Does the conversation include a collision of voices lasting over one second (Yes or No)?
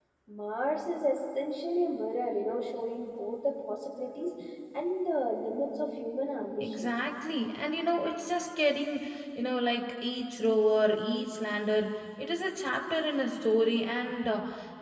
No